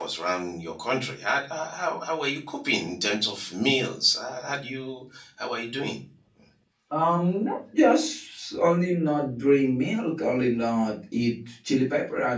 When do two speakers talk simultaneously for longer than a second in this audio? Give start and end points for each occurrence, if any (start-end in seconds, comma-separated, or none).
none